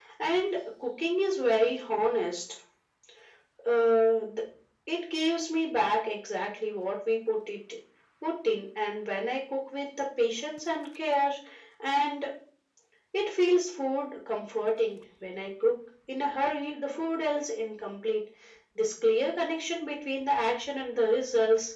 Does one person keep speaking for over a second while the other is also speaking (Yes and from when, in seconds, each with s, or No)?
No